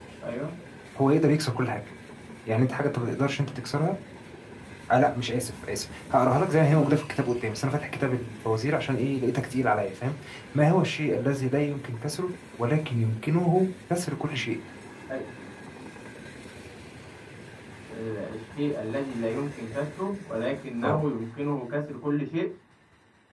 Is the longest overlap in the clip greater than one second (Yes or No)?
No